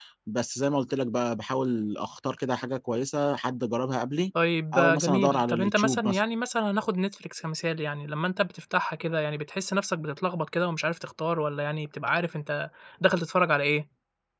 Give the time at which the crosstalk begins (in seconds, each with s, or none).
4.7 s